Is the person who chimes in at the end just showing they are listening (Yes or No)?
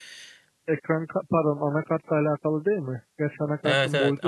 No